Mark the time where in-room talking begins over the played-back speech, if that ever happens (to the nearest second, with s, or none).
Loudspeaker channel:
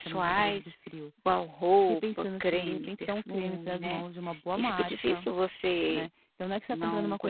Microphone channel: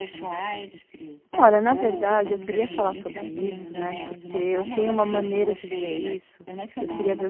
1 s